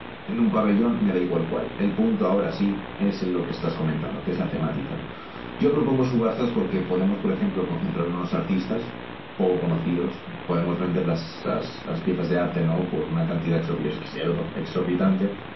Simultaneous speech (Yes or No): No